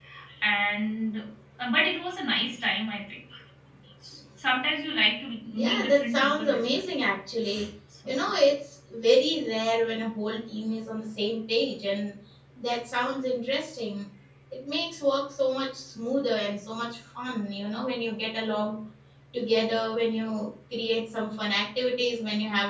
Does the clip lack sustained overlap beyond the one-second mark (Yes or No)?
No